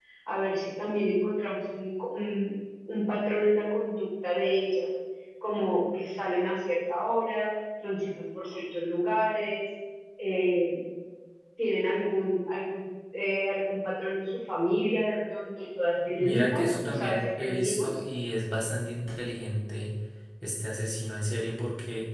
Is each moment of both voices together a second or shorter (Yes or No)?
No